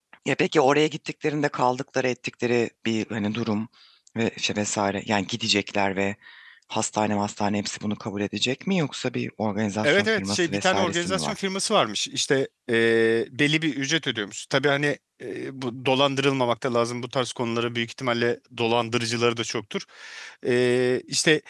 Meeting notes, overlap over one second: present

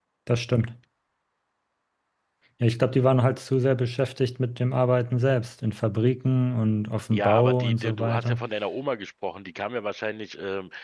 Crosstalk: present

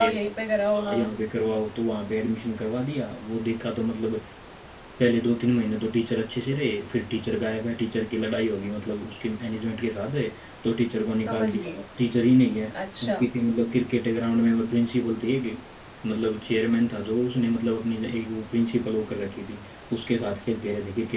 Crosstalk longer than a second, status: none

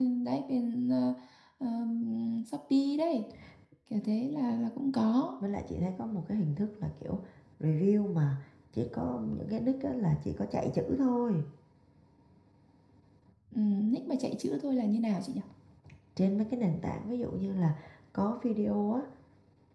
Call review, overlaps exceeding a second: none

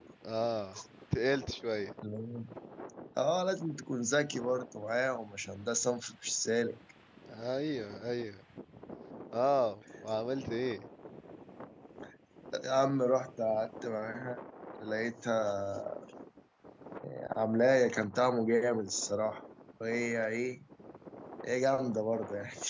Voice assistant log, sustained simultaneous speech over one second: none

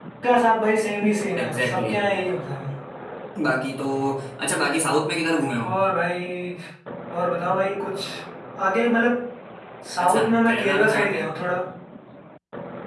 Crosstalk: present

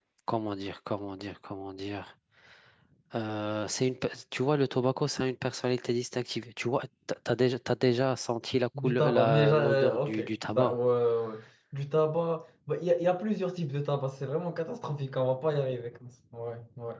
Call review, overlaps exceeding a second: present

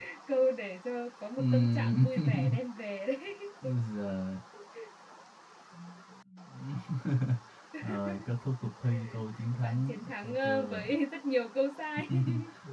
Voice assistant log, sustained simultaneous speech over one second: present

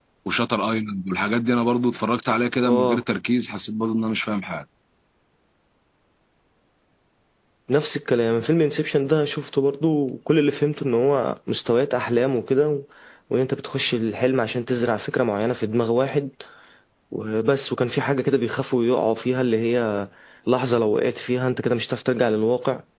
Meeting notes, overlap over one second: none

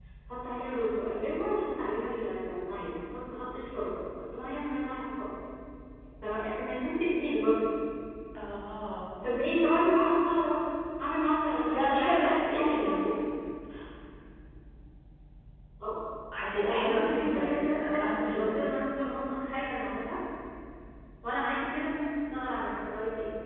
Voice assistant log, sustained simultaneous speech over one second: present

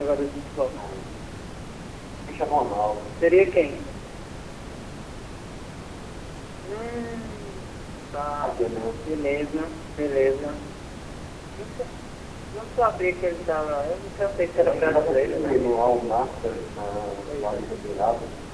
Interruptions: present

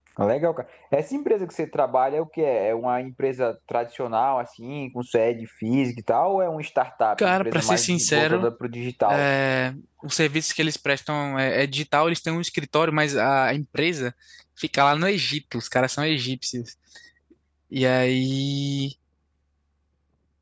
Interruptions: present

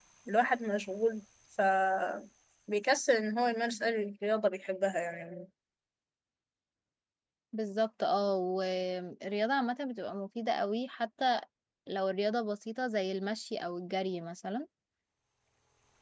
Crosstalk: none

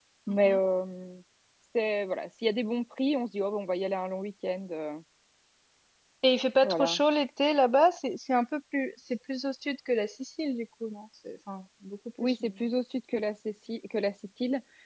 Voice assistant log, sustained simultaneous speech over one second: none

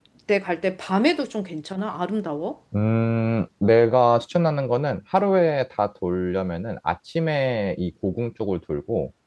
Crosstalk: none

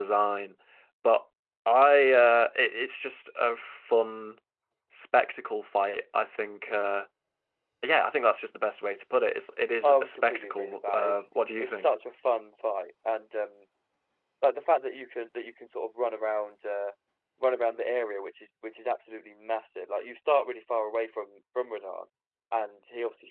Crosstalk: present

